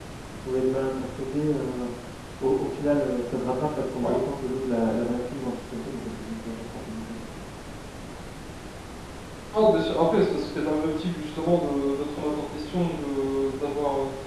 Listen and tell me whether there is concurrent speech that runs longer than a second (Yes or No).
No